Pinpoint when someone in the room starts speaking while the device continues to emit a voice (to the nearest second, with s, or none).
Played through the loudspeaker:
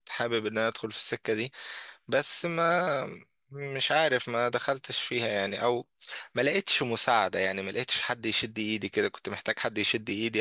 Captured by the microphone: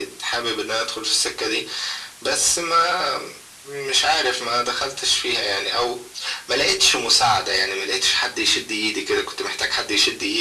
none